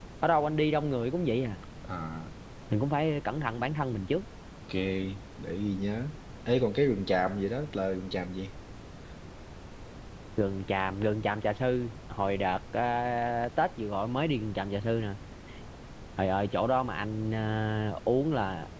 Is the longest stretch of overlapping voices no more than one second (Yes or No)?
Yes